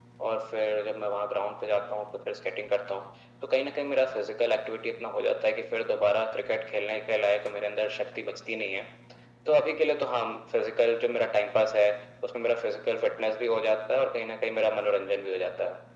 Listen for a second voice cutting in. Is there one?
No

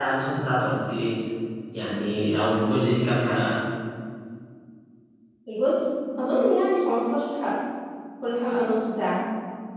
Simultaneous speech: No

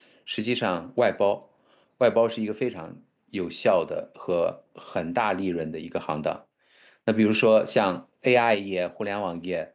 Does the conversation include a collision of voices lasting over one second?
No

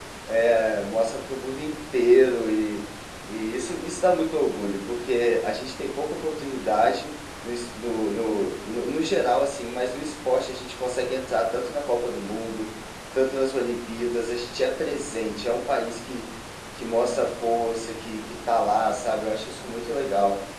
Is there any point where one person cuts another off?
No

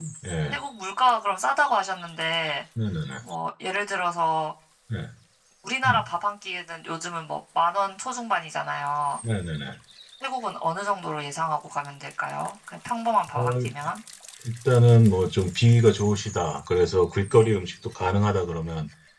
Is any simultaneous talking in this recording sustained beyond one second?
No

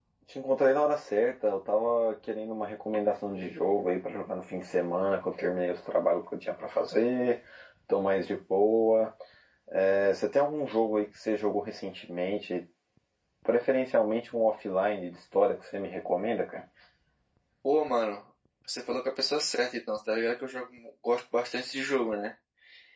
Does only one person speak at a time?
Yes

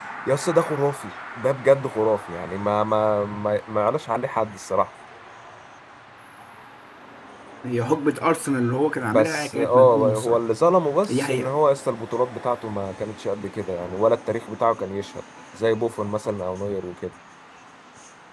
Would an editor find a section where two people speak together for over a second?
Yes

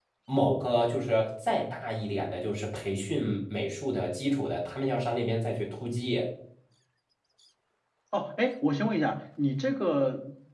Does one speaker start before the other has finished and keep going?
No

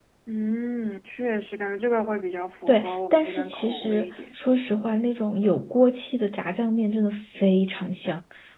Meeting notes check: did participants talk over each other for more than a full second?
Yes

